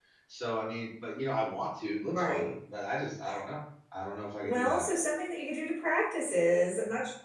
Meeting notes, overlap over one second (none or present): none